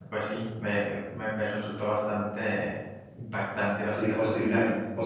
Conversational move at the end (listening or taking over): taking over